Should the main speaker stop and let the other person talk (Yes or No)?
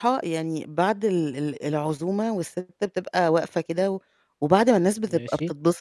No